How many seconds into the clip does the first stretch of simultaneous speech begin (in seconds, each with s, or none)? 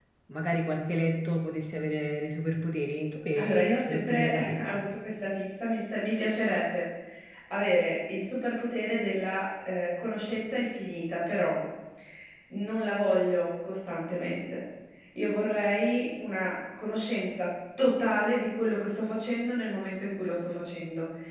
3.4 s